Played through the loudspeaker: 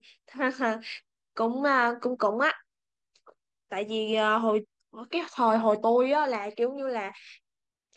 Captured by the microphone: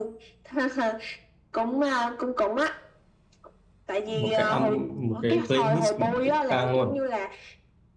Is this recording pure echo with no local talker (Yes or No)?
No